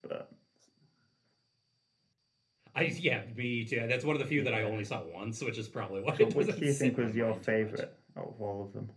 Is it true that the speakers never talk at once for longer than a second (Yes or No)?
No